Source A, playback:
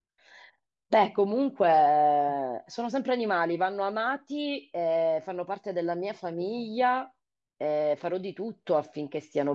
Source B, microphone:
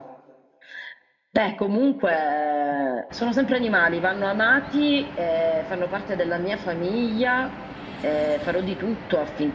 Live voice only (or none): none